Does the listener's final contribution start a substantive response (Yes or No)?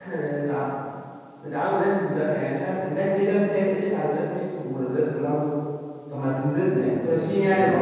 Yes